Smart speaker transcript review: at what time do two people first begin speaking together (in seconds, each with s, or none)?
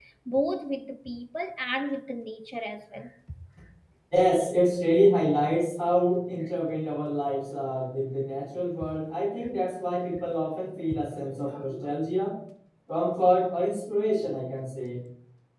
none